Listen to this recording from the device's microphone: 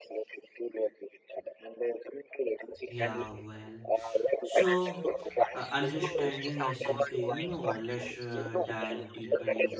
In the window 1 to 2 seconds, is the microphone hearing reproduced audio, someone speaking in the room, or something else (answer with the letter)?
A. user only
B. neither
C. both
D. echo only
D